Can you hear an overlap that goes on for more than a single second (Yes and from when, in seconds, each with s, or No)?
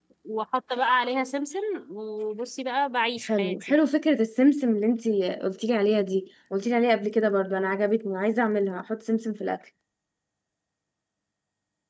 No